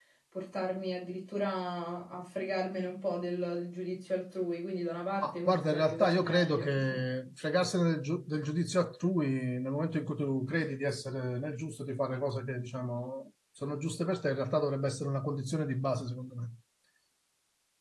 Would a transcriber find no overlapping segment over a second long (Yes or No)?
No